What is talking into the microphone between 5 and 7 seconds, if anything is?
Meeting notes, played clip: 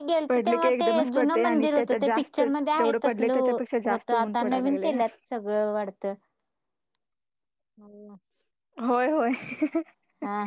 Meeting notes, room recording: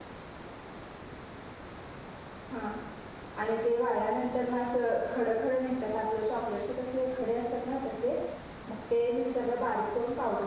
user only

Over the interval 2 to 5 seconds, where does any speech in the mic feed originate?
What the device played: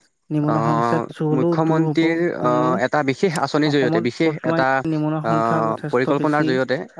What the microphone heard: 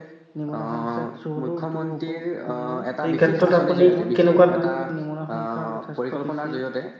both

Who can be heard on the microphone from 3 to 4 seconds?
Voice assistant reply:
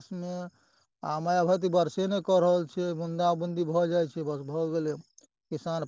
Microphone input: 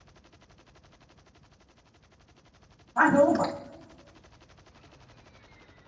user only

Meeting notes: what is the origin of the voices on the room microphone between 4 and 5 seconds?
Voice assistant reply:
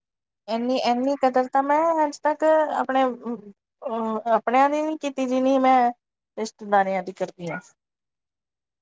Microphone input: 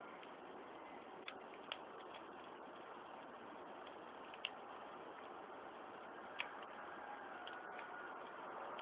neither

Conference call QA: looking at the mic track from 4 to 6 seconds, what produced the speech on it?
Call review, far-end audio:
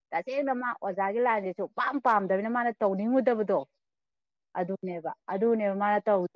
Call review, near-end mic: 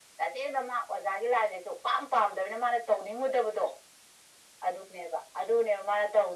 echo only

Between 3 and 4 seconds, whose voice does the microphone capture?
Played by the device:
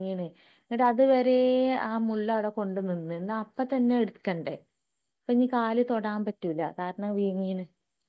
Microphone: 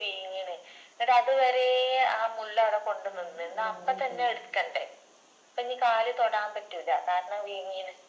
both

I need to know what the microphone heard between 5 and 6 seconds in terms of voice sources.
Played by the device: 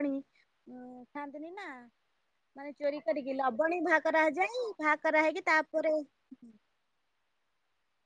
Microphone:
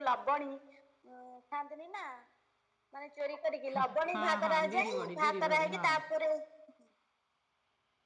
both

